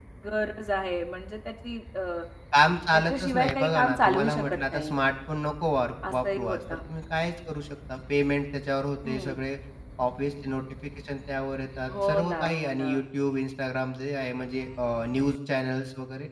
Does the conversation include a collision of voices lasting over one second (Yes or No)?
Yes